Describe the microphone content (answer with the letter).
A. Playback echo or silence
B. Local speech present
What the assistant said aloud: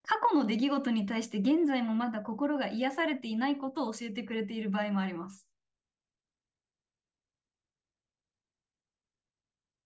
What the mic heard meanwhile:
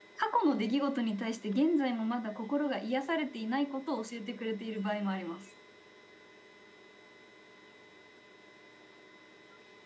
A